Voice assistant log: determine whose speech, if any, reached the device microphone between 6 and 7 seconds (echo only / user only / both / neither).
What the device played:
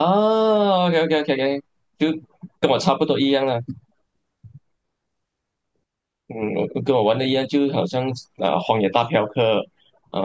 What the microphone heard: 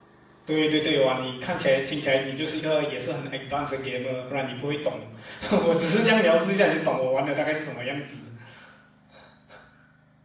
user only